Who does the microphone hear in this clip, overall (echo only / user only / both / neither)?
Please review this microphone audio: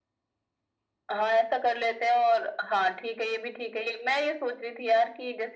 echo only